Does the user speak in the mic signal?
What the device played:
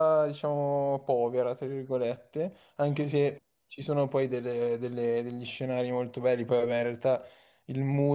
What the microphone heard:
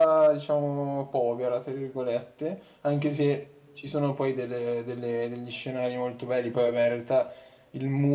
No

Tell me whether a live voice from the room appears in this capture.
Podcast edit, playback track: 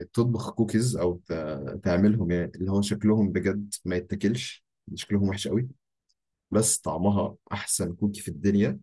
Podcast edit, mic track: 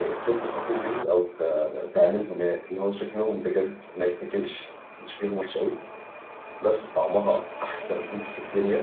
No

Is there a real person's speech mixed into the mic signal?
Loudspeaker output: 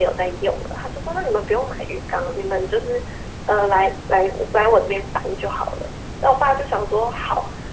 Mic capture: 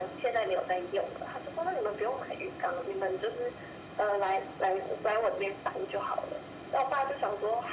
No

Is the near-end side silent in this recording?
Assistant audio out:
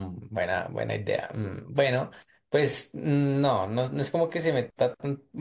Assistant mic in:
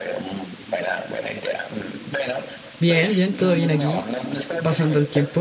No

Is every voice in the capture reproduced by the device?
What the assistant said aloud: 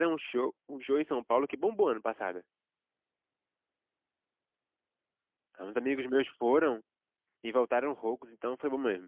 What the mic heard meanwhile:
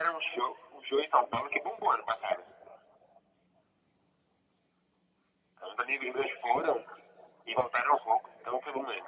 Yes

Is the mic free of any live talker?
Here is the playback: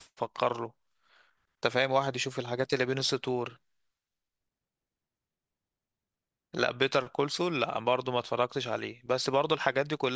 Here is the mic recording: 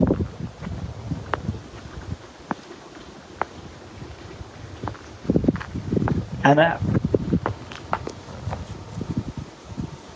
No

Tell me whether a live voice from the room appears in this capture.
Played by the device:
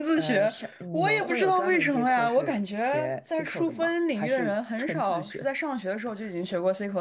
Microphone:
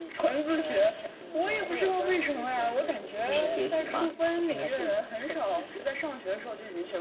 Yes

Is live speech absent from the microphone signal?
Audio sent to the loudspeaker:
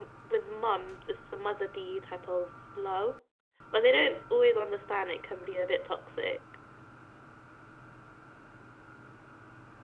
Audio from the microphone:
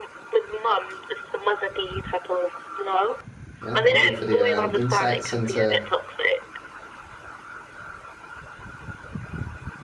No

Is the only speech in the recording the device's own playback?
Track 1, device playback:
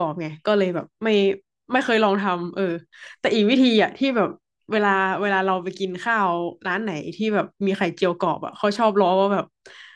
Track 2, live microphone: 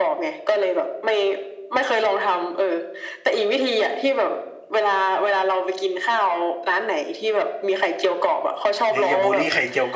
No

